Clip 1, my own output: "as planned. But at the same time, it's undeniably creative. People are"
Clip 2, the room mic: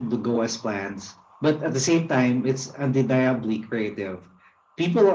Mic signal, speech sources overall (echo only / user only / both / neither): echo only